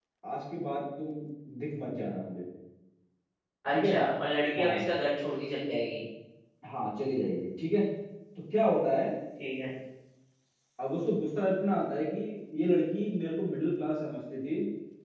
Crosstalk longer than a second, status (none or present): none